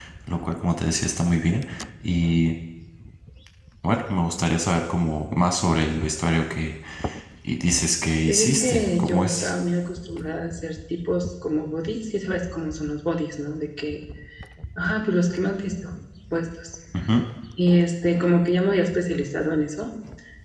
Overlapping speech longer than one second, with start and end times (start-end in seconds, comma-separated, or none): 8.3-9.5